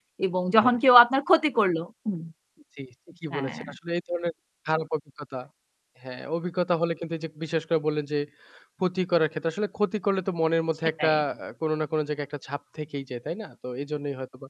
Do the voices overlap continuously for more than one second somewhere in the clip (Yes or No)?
No